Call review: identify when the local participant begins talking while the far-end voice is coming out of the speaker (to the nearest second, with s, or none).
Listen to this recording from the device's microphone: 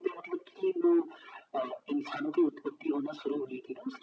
none